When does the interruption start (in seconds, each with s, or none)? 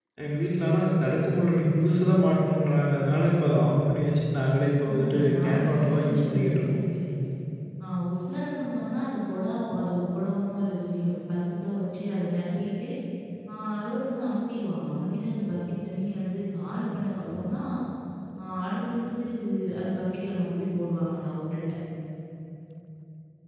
4.8 s